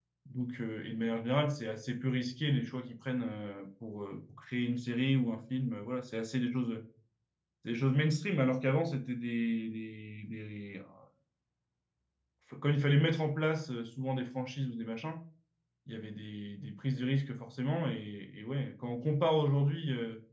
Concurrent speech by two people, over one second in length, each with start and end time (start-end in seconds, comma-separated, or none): none